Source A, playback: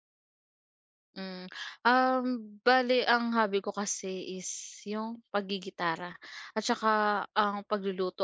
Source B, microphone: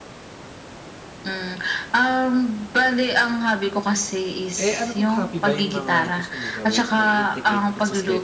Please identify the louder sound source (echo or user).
echo